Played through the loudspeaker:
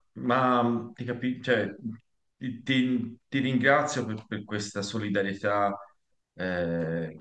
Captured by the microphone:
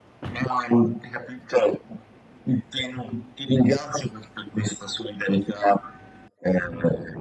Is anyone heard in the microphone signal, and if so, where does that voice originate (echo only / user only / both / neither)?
echo only